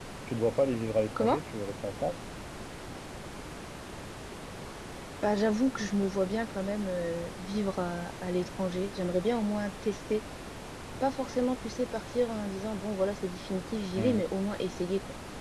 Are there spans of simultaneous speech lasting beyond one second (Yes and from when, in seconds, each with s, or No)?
No